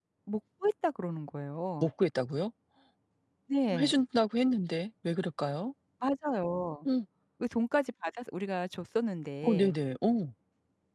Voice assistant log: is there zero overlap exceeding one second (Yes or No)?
Yes